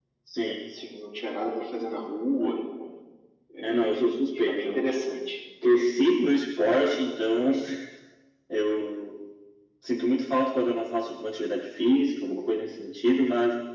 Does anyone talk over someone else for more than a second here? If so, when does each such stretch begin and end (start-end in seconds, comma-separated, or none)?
3.6-4.9